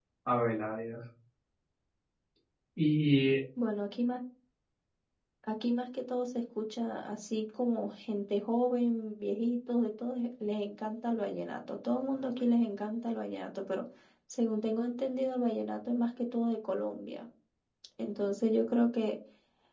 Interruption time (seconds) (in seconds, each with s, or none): none